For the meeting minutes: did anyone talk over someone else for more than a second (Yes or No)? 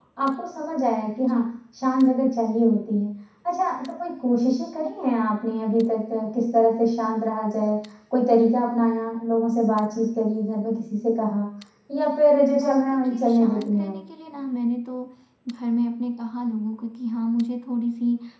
Yes